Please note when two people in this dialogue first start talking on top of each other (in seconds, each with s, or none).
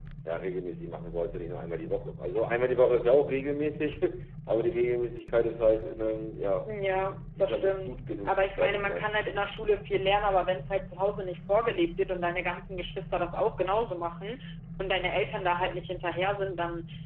6.7 s